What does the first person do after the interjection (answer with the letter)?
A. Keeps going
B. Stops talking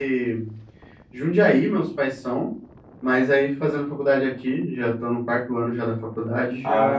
B